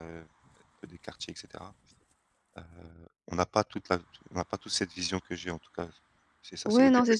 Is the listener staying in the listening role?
No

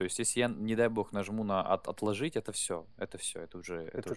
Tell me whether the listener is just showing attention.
No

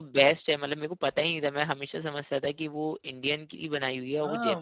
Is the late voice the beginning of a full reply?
Yes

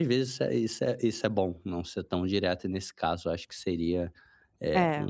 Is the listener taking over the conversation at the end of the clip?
No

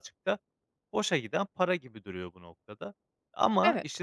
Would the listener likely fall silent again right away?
Yes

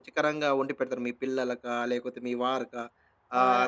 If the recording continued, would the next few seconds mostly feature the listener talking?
No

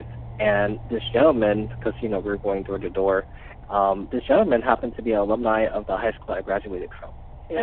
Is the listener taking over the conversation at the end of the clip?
No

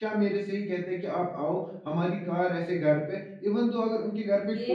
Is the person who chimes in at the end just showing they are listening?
No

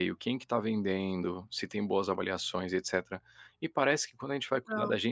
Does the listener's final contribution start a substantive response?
No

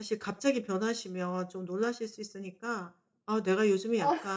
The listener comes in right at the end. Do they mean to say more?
No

